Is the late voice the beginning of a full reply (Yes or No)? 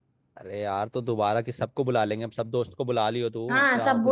Yes